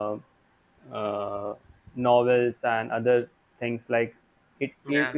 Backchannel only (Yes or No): Yes